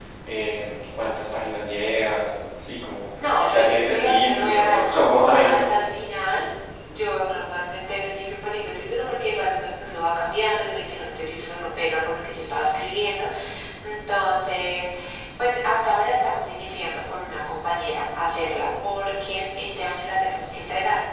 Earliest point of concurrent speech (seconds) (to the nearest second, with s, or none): 4 s